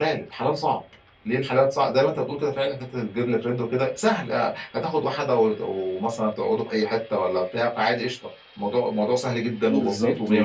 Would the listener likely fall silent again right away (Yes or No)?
No